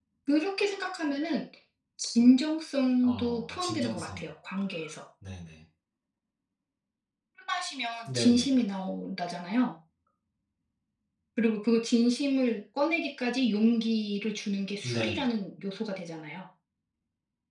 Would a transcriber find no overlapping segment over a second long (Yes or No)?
No